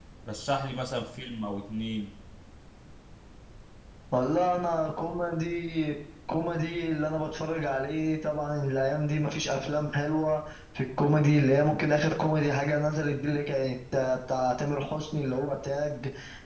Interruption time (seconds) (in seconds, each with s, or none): none